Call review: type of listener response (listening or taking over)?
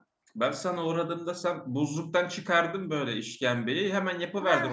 taking over